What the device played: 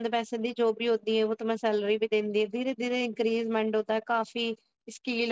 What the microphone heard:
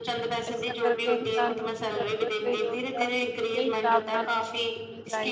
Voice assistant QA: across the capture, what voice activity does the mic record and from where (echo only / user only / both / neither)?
both